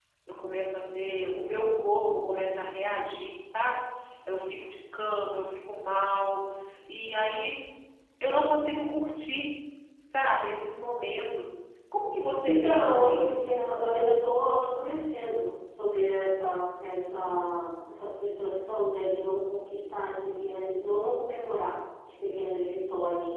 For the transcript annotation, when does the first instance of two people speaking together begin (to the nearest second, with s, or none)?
12 s